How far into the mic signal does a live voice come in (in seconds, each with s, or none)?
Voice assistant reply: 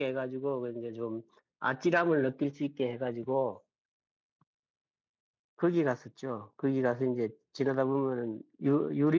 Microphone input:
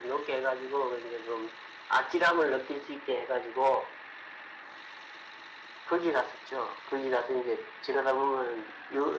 none